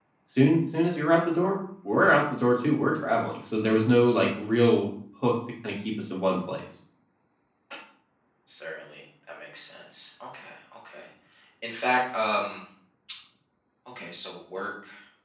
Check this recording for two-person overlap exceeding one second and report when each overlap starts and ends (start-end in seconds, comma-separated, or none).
none